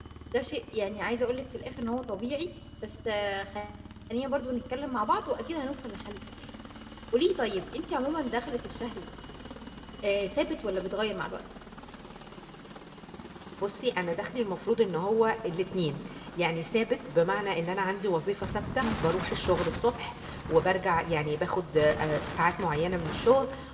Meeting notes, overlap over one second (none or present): none